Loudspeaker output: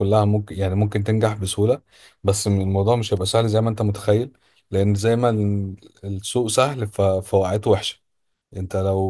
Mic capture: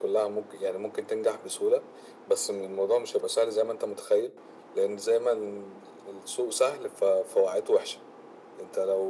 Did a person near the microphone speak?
No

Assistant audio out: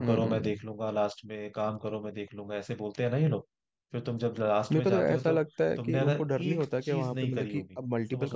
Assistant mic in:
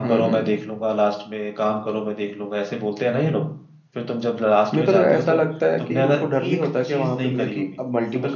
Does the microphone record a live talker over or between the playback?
No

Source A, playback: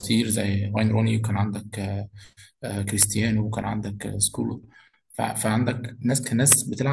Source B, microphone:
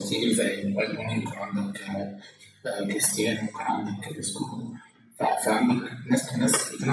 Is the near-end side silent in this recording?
Yes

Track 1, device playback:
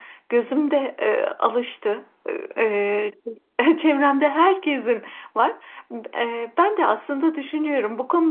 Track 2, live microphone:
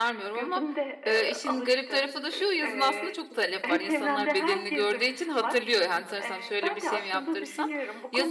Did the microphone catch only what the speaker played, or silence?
No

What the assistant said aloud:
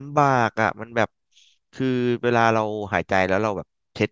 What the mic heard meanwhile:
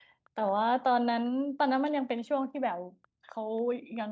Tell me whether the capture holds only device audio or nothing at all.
No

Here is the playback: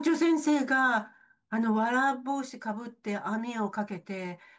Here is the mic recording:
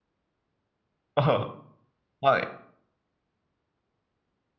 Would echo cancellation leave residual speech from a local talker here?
Yes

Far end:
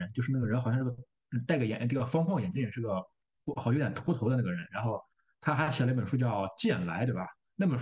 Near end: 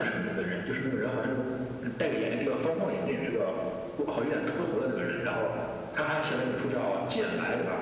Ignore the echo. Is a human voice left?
No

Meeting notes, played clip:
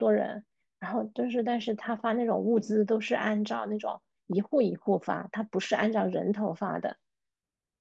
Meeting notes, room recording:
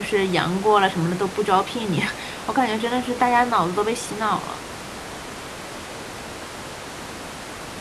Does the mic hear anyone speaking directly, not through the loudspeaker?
Yes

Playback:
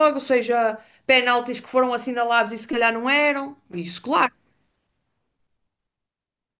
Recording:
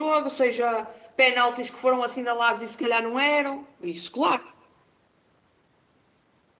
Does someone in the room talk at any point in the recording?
No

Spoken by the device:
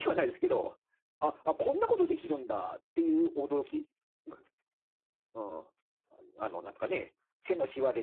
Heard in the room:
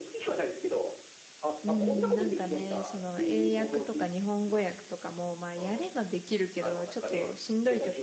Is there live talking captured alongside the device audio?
Yes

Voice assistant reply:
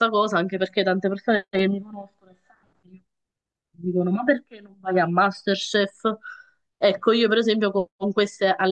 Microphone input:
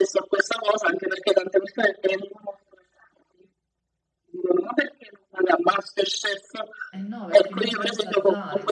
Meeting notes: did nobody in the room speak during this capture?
No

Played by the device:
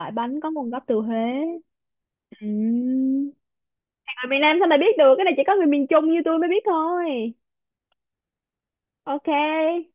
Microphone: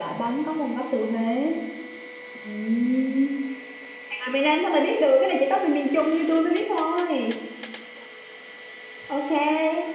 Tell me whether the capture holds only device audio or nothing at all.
Yes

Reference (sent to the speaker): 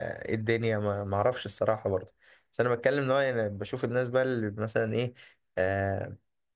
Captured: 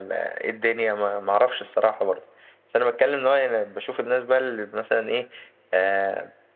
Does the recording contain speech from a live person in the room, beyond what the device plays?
No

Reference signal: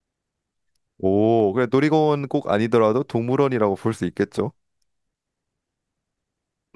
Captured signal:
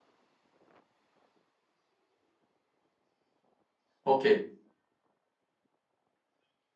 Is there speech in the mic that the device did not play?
Yes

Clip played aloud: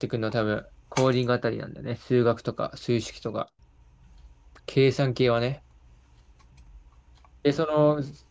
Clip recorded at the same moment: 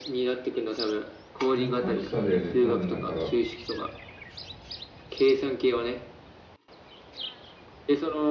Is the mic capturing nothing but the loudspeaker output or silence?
No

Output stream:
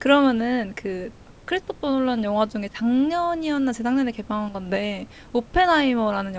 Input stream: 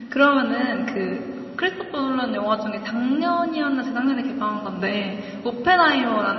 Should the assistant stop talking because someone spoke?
No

